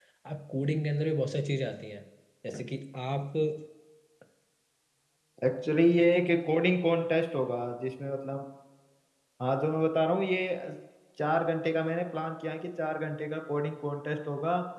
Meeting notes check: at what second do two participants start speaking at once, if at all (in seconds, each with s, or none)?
none